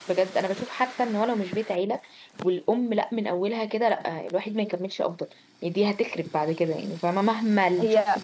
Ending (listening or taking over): listening